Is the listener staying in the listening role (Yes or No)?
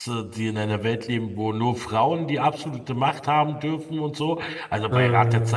Yes